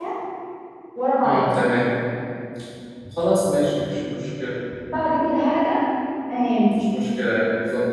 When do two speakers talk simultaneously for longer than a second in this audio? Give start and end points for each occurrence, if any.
none

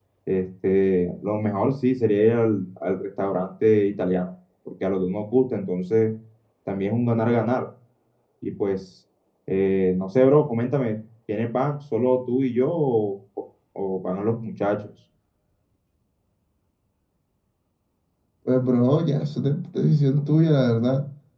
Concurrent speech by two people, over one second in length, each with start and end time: none

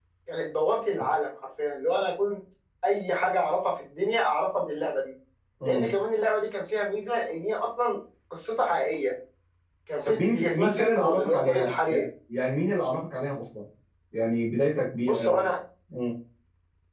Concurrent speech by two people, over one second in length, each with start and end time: 10.1-12.0

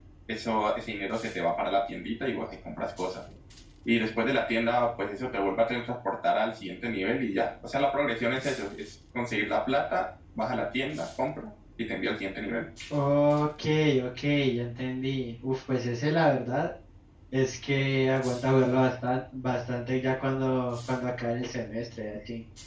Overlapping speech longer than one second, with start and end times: none

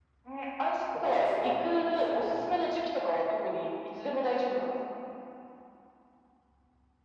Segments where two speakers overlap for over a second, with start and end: 1.0-2.4

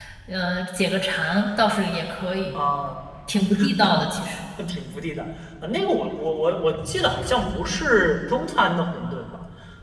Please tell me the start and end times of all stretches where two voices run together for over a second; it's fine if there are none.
none

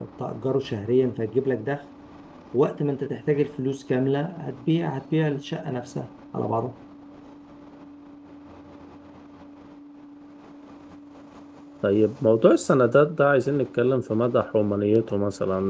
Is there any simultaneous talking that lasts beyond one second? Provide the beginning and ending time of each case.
none

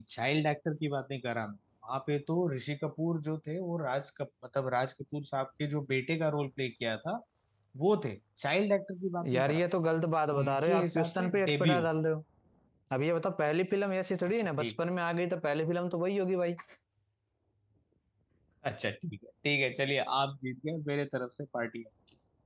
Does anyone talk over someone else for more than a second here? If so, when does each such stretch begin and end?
10.4-11.8

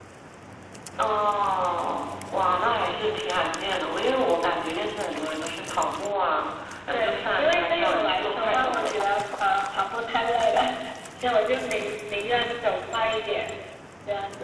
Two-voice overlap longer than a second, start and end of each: 6.9-8.9

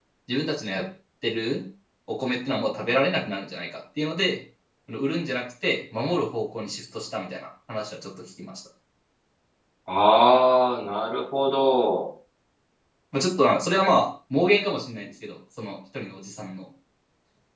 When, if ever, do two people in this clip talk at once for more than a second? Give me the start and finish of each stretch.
none

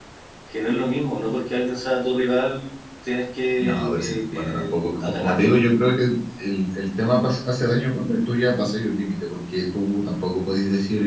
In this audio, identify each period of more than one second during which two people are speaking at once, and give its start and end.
3.6-5.6

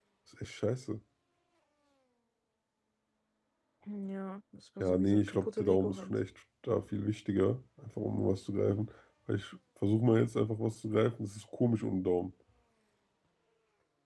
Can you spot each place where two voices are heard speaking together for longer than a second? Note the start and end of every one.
4.8-6.2

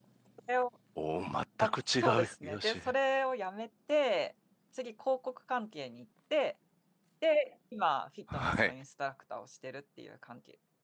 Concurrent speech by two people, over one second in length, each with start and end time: 1.6-2.8

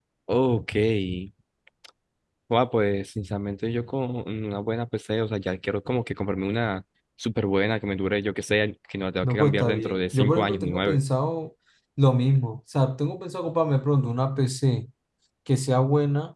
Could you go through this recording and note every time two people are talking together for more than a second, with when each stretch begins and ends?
9.2-11.0

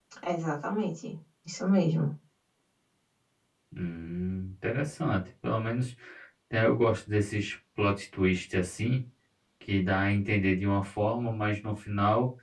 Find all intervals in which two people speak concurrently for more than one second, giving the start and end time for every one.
none

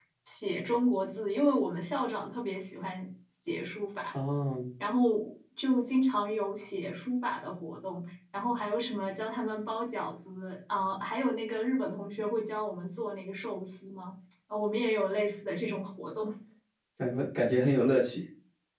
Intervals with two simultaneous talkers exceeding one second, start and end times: none

